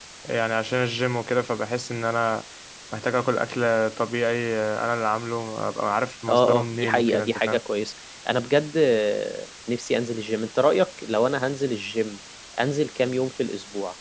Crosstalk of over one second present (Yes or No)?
Yes